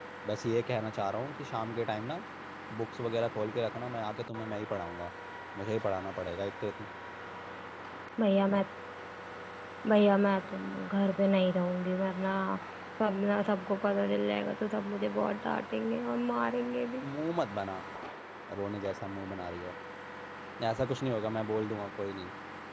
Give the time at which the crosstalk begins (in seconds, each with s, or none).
none